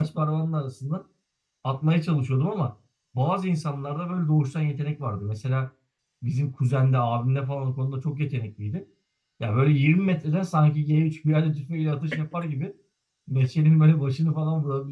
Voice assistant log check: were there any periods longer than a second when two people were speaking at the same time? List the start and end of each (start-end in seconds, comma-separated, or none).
none